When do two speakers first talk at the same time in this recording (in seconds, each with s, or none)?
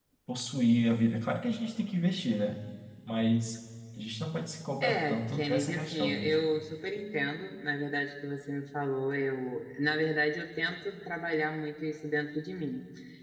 4.8 s